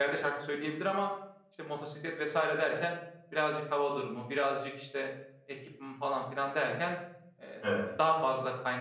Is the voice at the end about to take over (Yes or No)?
No